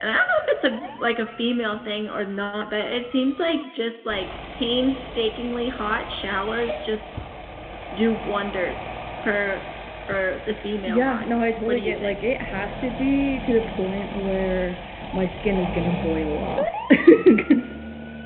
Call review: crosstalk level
present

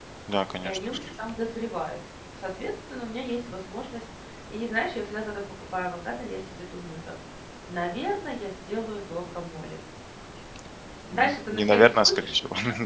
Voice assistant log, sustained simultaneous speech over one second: present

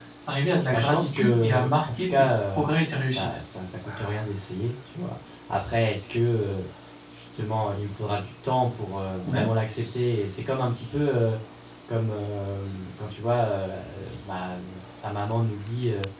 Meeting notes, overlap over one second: present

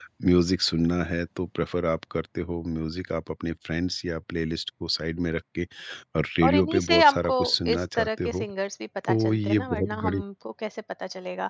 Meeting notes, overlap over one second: present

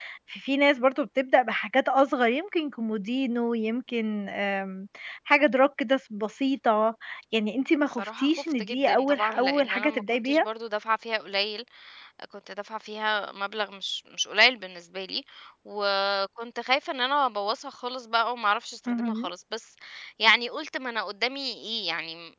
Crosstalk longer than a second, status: present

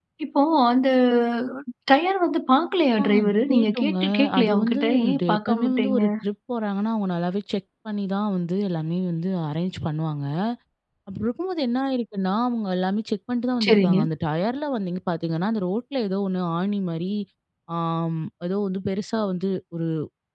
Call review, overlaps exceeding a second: present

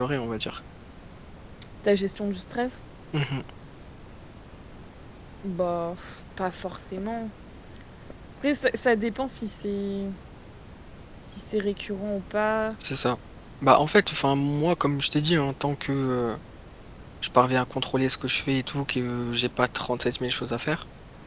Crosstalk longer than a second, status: none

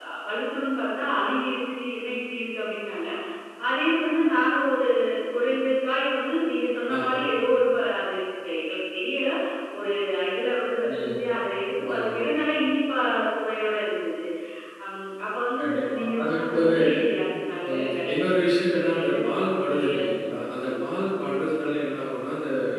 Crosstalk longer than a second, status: present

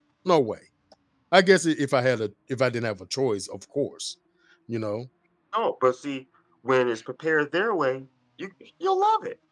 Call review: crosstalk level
none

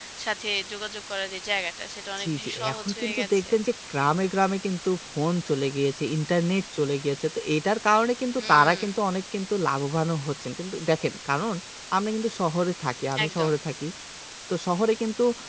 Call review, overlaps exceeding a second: present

